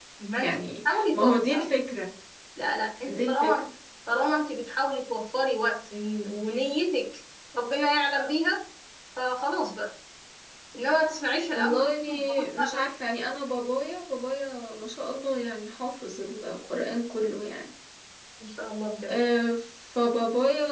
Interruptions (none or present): present